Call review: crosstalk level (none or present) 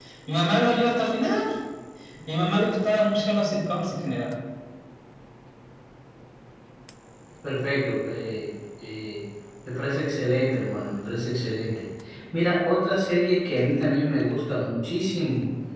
none